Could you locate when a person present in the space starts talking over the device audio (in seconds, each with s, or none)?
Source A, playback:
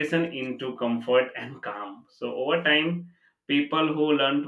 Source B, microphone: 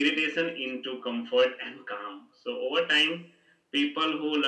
none